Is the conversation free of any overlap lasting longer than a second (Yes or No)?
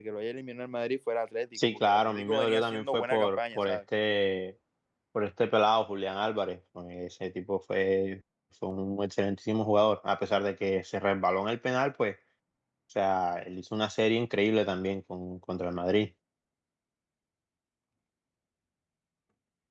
No